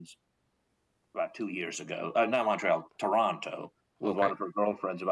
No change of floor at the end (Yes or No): Yes